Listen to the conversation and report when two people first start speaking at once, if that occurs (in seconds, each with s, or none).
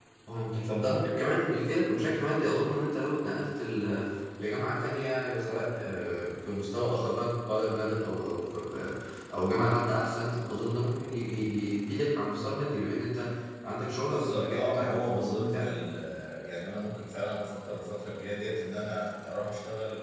14.1 s